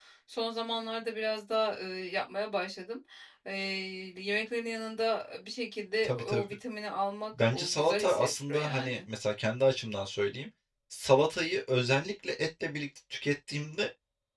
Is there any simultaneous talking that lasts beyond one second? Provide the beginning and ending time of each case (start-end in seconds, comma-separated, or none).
7.4-9.0